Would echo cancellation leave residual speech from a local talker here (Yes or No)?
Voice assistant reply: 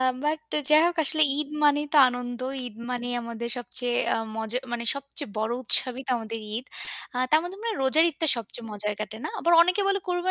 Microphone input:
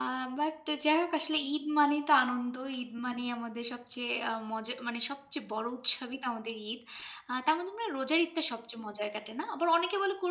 No